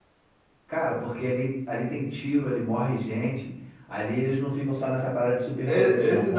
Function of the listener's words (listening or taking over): taking over